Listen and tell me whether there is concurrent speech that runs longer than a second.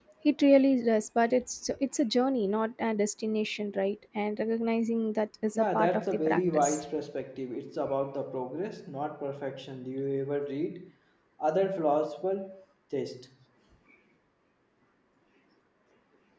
Yes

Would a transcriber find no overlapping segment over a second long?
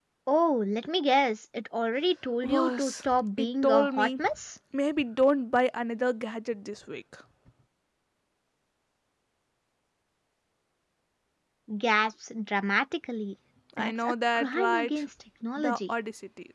No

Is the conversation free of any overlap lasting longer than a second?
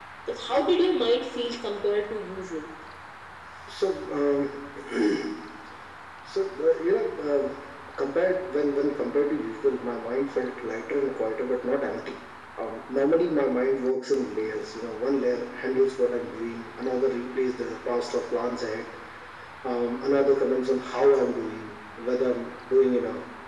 Yes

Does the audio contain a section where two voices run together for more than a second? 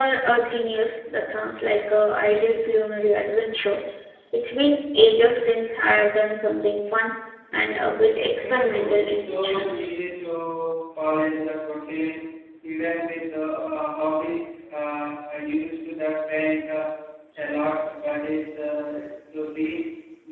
Yes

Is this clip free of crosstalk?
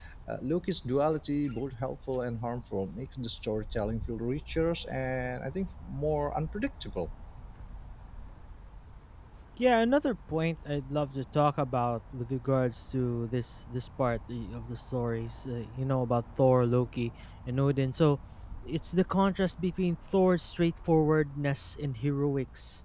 Yes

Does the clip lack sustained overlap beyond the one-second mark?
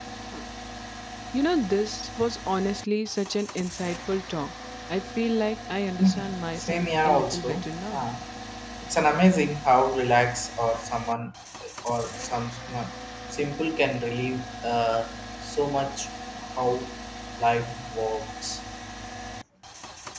No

